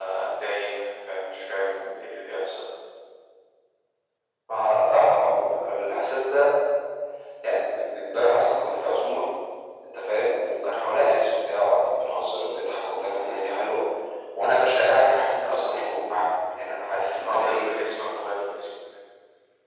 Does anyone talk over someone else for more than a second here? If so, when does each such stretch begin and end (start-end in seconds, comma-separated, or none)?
none